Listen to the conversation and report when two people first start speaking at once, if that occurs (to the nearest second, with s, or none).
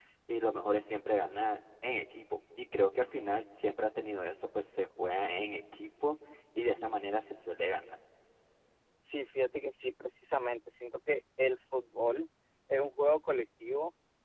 none